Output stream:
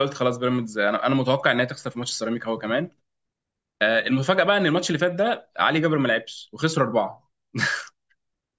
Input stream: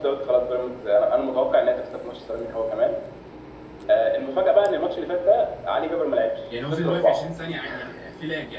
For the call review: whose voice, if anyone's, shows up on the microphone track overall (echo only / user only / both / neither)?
both